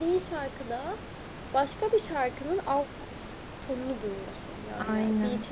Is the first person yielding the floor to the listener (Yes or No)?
No